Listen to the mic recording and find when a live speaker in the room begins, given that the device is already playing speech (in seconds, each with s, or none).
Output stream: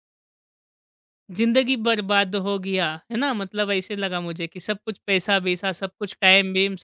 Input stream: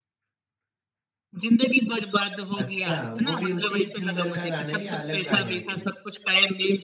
2.5 s